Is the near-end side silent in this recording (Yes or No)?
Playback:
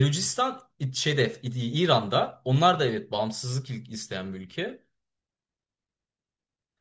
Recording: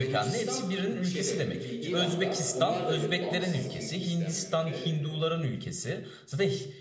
No